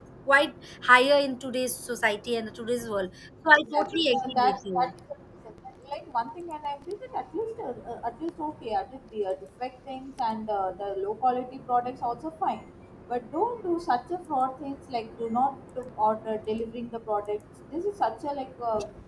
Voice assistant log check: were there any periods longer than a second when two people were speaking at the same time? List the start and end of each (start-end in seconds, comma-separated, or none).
3.6-4.9